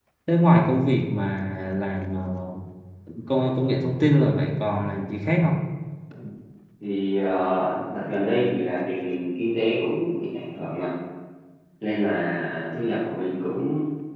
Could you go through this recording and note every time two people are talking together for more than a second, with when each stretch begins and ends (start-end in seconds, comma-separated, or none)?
none